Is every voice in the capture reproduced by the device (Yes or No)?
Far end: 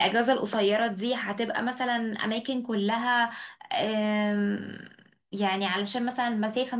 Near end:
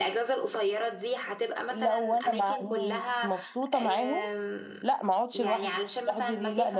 No